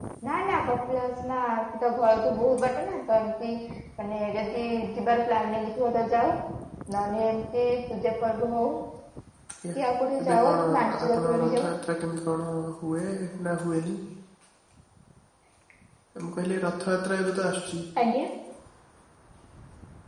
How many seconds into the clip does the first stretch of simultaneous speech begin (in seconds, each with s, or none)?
10.2 s